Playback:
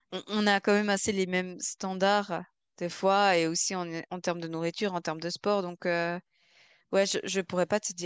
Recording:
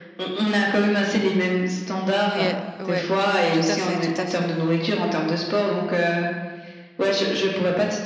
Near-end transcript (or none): Oh, oh, Yeah, ouais, tout tout à fait, tout à fait.